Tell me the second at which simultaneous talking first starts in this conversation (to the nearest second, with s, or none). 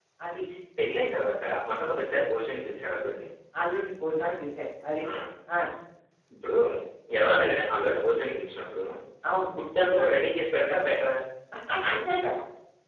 none